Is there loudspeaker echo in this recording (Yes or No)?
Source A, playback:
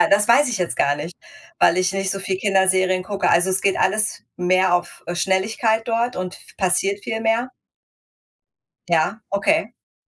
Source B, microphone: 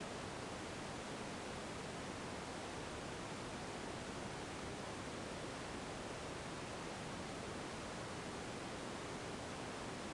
No